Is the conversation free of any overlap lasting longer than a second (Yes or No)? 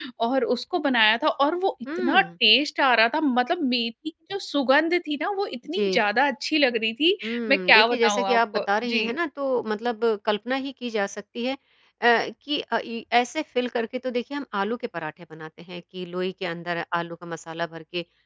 No